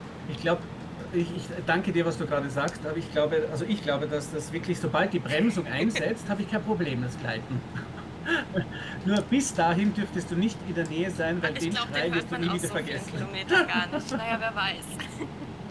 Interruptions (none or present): present